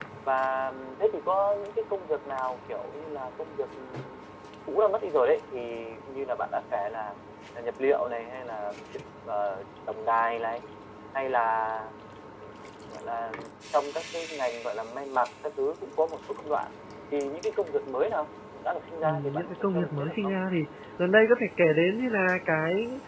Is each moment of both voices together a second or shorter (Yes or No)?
No